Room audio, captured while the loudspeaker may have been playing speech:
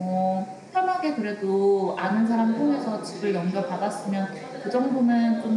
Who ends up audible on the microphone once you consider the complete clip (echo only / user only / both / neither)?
both